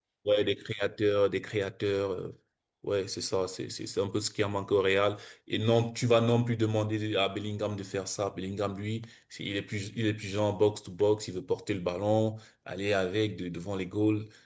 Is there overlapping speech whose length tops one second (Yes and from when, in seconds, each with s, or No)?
No